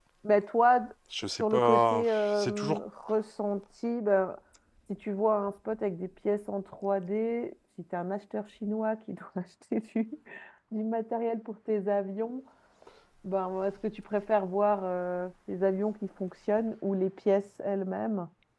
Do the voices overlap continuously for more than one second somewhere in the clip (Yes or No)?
Yes